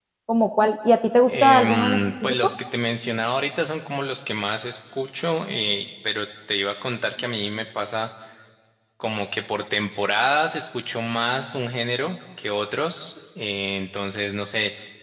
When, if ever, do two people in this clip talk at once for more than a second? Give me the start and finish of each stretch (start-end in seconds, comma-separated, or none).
1.3-2.5